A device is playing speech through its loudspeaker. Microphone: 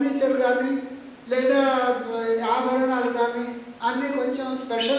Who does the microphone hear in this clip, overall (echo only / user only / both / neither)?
echo only